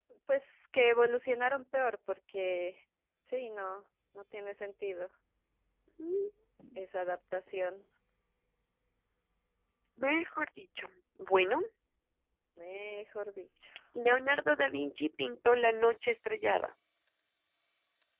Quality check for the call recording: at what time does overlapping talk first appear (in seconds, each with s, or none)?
none